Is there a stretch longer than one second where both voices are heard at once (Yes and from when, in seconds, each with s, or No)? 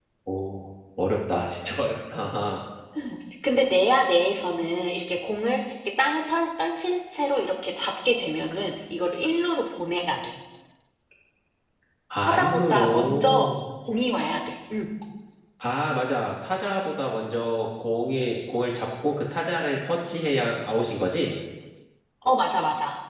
Yes, from 12.3 s